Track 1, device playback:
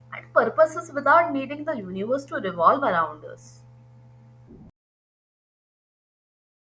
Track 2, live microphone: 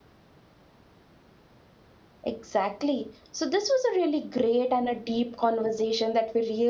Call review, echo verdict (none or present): none